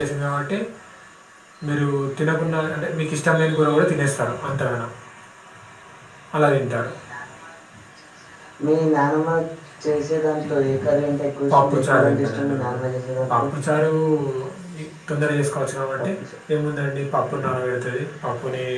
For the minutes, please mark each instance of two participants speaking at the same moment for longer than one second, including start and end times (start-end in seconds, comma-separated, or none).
11.5-12.8